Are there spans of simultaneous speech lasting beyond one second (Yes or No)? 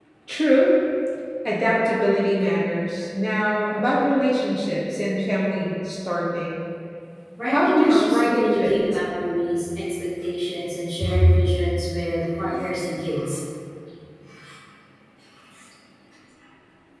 Yes